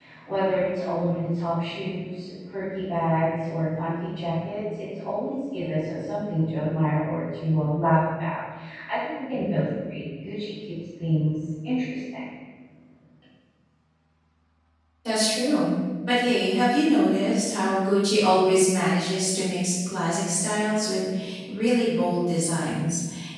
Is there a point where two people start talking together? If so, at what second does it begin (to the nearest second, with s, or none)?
none